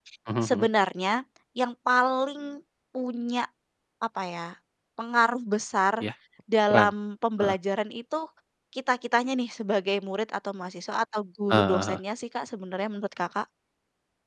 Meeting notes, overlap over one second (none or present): none